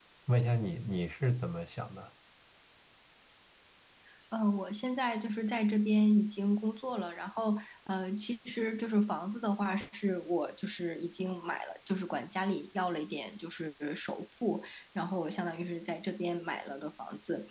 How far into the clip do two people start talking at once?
none

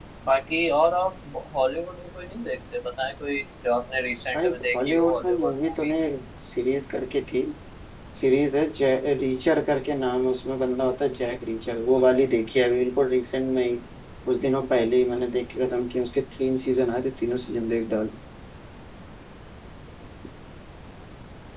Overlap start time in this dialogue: 4.3 s

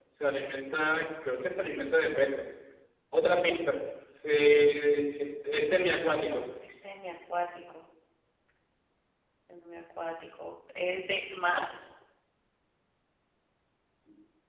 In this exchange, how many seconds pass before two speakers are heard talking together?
none

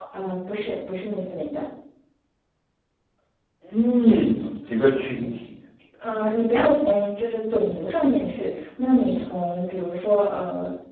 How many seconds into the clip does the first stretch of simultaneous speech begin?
none

